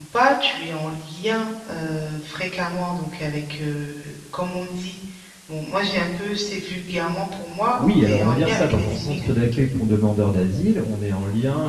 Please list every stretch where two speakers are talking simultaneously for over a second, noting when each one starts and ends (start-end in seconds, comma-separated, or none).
7.8-9.3